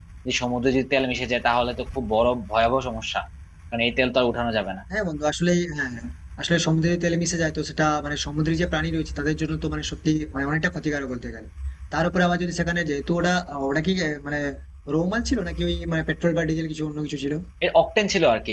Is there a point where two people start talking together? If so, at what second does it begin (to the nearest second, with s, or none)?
none